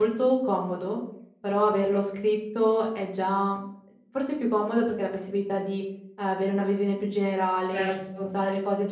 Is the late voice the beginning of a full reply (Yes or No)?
No